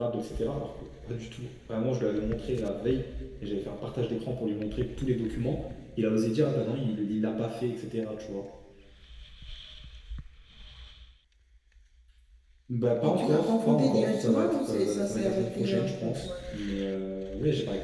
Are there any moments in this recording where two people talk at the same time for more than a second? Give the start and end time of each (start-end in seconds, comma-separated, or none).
13.0-16.3